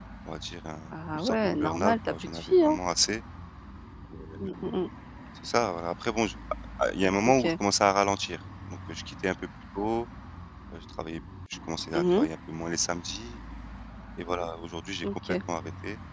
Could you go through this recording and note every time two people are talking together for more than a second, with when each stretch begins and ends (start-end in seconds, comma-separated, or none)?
1.1-2.8